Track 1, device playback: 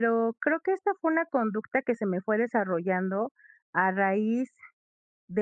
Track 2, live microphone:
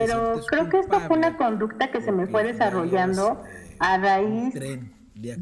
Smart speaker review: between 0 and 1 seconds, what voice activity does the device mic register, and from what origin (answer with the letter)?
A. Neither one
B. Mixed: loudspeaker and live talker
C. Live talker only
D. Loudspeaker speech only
B